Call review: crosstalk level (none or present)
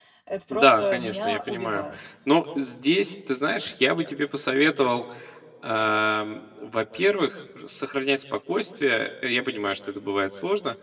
present